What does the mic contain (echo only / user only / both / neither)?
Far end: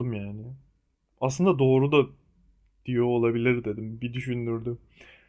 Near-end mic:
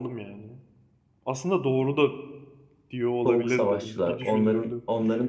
both